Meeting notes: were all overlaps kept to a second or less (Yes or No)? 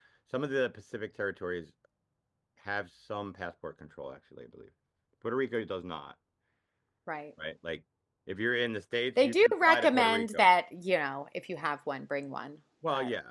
No